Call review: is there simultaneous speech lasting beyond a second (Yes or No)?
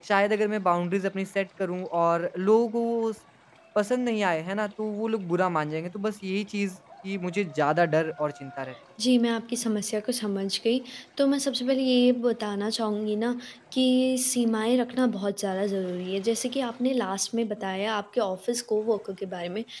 No